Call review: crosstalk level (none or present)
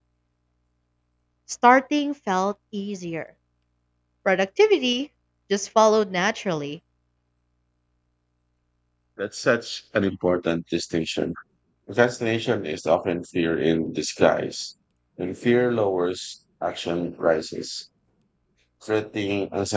none